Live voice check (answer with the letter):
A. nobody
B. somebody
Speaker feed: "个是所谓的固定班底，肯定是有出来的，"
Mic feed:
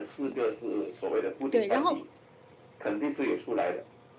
B